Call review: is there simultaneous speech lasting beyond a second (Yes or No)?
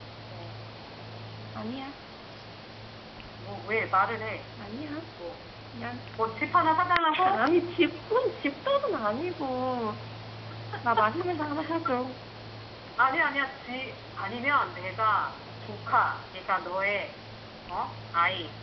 No